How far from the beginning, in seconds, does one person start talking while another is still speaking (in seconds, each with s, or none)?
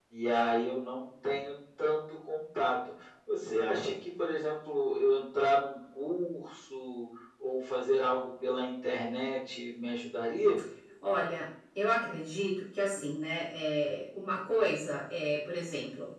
none